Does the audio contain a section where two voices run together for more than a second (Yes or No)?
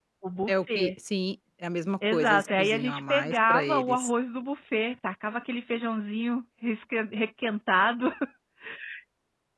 Yes